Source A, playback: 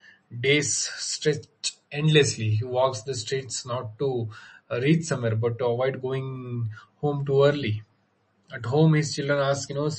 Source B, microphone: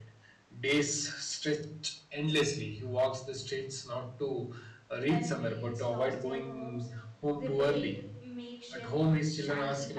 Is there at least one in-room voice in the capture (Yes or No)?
Yes